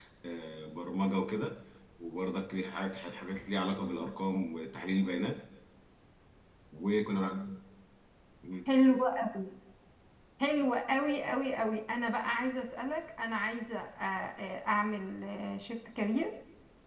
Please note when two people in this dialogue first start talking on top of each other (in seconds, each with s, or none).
none